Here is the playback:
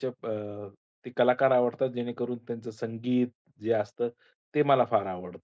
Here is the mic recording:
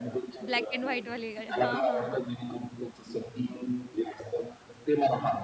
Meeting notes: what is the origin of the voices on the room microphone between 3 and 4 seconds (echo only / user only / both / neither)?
echo only